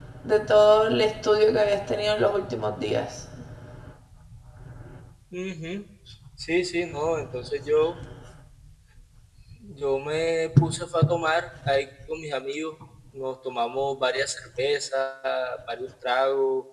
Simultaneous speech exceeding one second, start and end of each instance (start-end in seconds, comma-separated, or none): none